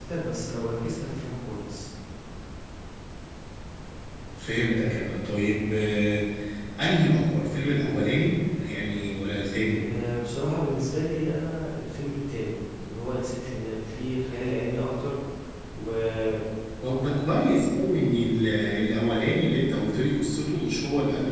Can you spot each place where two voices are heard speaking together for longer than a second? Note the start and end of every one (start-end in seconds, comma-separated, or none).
none